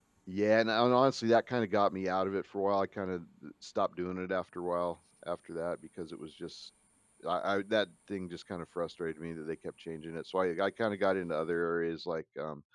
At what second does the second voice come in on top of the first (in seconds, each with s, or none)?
none